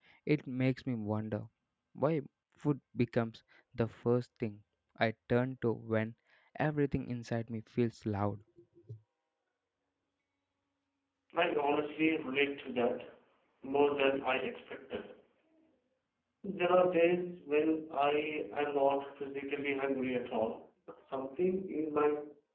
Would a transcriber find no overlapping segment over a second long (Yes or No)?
Yes